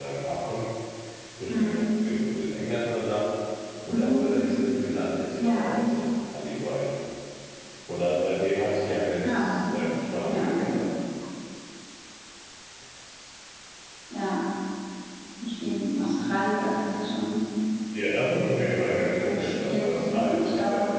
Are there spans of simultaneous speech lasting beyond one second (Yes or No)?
Yes